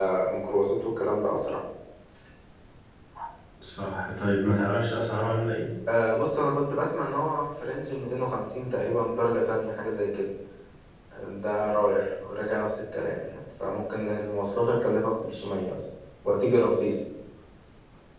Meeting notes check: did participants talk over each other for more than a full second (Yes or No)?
No